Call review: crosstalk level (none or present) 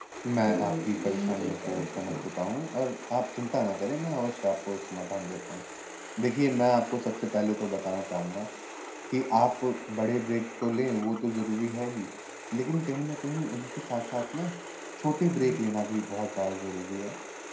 present